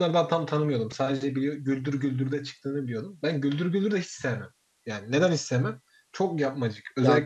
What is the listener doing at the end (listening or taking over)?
listening